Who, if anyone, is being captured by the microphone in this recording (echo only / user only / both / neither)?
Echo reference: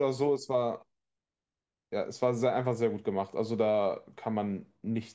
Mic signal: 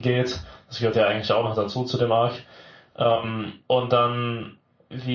user only